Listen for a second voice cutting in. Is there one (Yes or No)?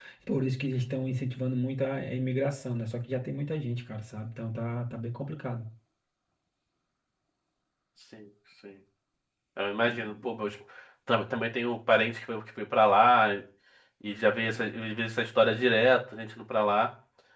No